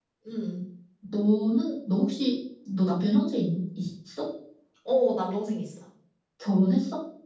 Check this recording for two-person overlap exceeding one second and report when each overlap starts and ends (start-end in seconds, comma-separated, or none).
none